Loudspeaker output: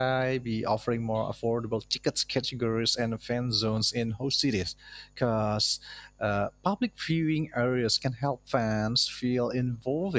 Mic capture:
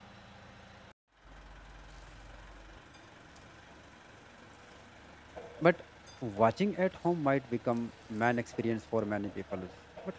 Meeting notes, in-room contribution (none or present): present